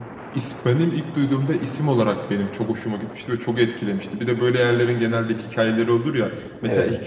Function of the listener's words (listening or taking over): listening